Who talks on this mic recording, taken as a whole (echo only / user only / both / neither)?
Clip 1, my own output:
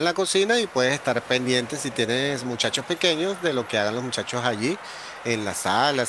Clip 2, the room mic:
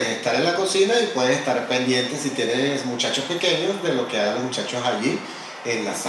echo only